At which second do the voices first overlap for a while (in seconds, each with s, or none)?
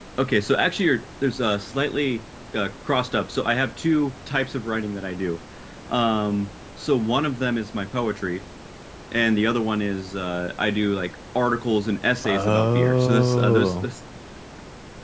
12.2 s